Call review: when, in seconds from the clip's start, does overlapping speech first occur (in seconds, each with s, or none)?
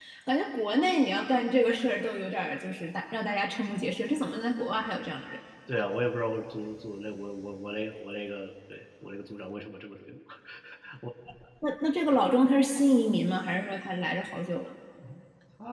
none